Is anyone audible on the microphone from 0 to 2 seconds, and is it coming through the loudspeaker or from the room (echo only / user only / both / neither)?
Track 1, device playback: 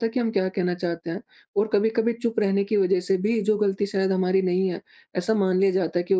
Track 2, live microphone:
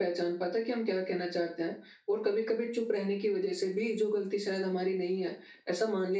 echo only